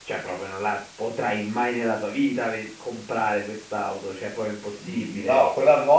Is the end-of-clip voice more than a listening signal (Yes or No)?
Yes